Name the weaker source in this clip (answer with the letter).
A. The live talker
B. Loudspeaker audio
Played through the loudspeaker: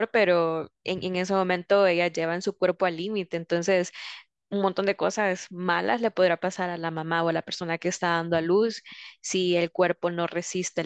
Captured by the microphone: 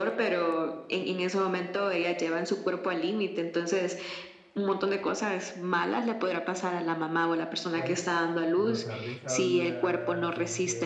A